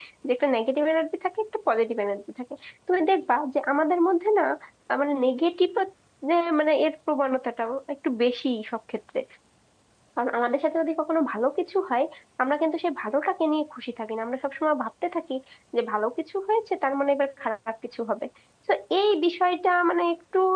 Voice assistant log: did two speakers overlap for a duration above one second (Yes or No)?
No